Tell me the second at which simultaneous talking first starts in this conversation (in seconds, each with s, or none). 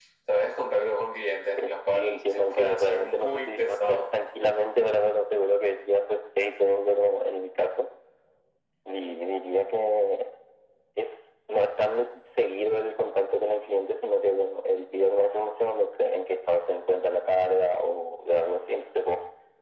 1.6 s